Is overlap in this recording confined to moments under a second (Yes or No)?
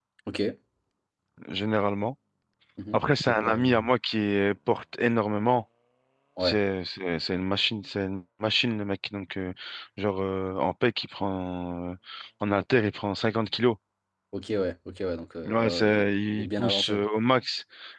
No